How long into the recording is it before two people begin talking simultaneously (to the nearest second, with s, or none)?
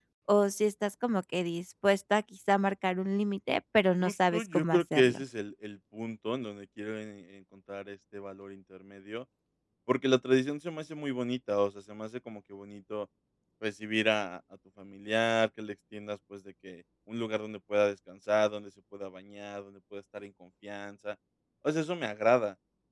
4 s